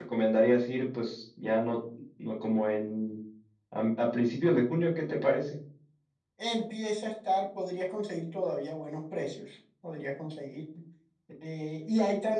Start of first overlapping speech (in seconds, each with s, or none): none